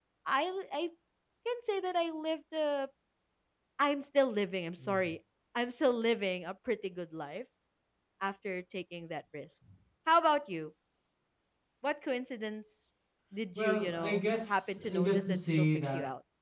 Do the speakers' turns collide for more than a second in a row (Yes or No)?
Yes